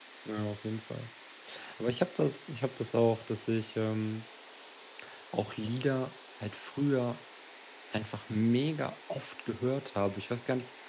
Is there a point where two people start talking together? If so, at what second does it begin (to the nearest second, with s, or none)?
none